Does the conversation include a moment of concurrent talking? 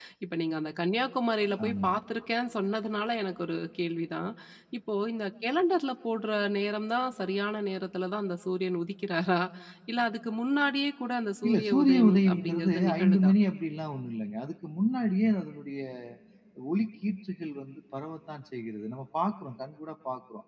Yes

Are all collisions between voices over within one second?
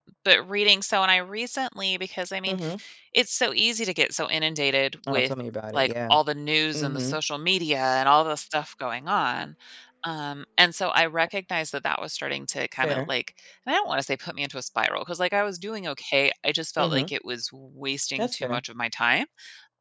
Yes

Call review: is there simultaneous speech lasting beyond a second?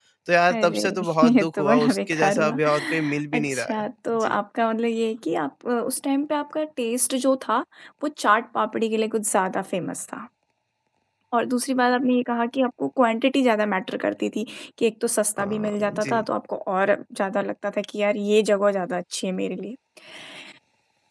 Yes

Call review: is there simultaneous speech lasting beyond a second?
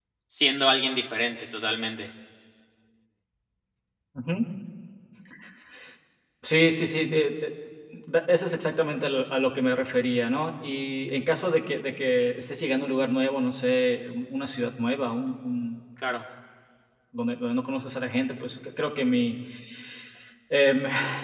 No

